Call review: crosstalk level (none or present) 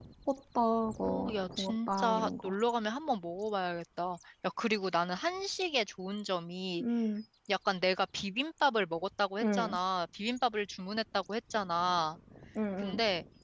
present